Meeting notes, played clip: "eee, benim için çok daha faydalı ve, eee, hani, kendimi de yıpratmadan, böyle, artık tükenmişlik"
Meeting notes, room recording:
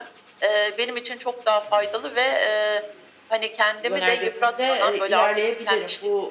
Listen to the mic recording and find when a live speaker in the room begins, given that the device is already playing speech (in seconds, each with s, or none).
3.8 s